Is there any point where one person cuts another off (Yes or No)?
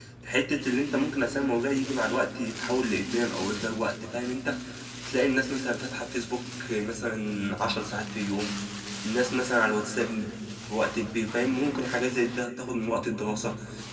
No